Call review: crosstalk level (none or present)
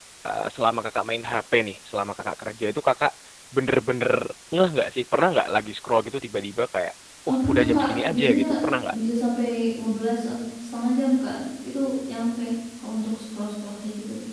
present